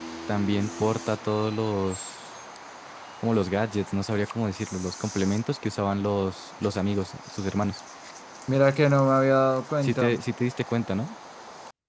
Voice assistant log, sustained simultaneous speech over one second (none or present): none